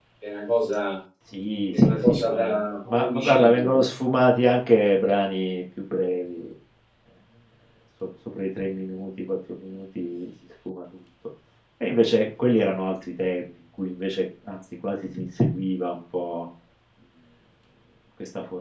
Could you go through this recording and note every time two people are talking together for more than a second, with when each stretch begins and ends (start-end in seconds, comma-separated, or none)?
1.7-3.8